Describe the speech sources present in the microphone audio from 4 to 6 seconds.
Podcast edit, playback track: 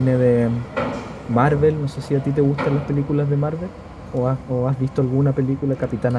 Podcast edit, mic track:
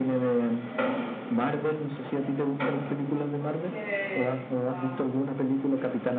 both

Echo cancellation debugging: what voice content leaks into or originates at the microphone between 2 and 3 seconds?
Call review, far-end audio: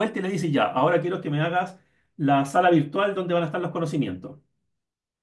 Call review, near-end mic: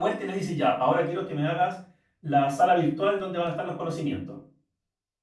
echo only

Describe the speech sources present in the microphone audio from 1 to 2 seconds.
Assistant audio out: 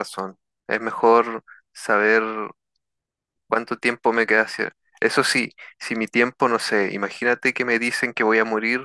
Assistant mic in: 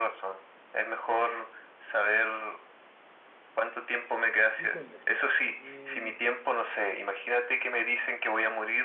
echo only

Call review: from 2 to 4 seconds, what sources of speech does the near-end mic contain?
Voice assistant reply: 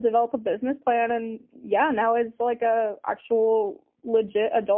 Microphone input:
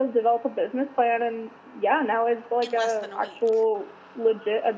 both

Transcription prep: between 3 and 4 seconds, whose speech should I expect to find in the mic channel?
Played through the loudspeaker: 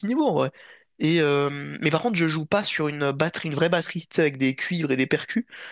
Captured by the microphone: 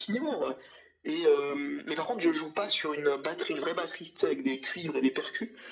echo only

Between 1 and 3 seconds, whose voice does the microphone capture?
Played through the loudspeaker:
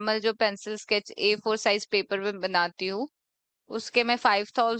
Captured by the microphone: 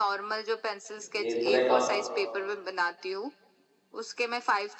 both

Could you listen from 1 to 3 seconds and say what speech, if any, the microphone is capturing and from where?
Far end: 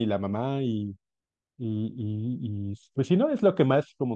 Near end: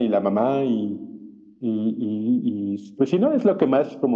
echo only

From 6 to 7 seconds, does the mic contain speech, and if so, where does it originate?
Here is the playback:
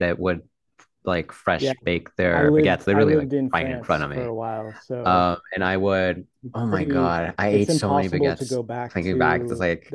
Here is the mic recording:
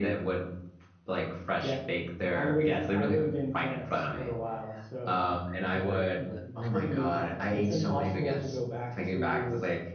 both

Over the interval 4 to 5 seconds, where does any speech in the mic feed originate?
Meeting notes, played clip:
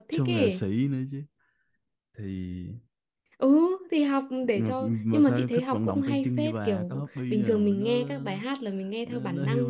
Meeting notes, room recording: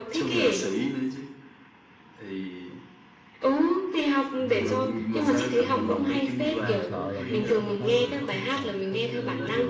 both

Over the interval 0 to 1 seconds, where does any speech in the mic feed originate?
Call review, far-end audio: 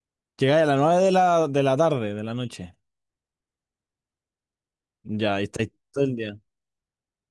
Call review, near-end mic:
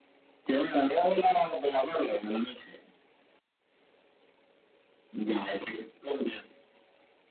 echo only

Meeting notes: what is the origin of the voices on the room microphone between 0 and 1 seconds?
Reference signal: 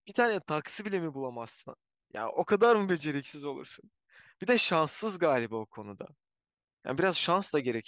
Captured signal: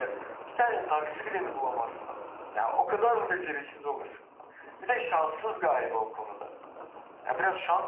echo only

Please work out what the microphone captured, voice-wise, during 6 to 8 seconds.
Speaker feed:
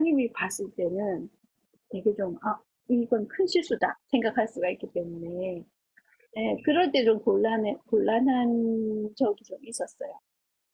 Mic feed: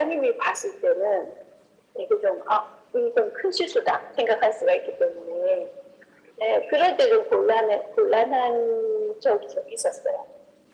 echo only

